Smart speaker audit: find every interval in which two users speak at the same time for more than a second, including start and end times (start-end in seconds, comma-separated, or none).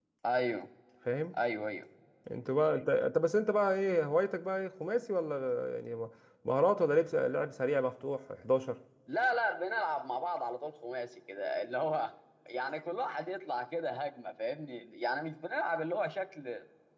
none